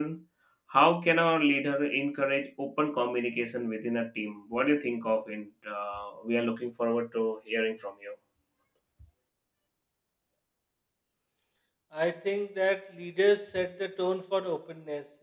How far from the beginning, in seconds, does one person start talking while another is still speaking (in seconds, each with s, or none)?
none